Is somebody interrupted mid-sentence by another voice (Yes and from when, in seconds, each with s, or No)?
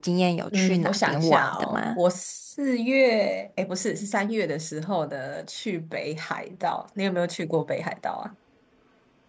Yes, from 0.5 s